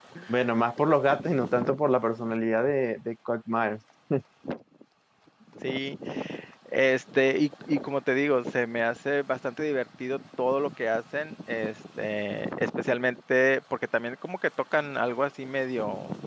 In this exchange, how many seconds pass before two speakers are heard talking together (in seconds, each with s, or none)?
none